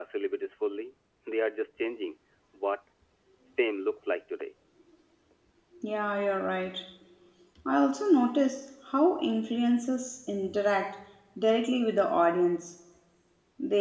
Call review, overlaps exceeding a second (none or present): none